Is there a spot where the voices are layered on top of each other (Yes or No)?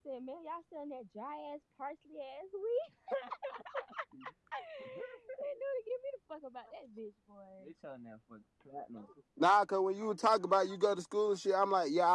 No